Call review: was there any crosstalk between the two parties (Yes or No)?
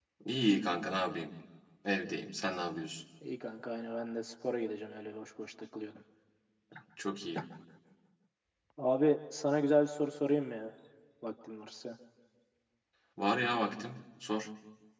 No